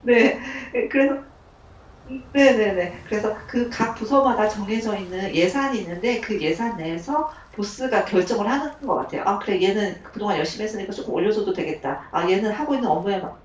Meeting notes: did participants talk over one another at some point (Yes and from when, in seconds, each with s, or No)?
No